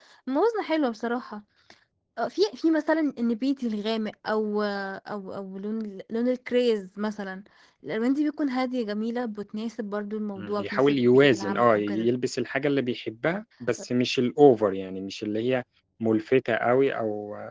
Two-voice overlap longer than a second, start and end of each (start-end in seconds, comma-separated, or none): 10.4-12.1